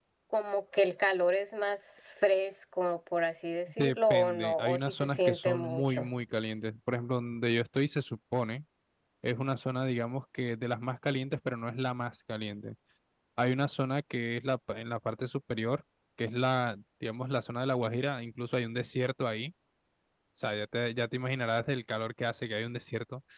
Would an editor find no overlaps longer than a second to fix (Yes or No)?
No